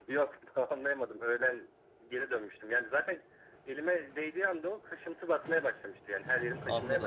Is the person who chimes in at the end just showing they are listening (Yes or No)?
No